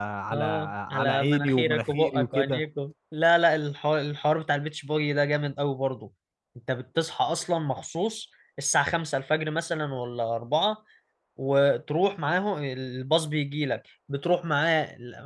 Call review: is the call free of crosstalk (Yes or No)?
No